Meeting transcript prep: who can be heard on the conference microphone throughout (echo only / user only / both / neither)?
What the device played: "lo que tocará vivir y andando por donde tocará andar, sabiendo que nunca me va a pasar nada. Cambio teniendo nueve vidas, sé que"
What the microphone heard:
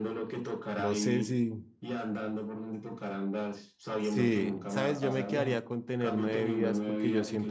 both